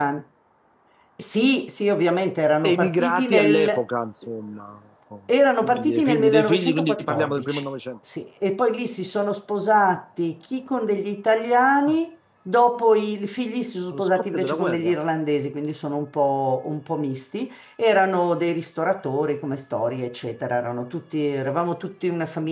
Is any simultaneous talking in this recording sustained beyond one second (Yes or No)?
Yes